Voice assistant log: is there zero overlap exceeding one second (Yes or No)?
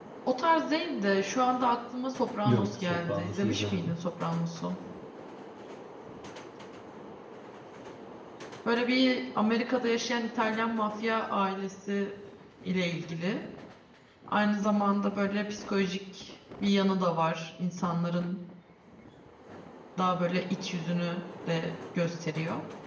No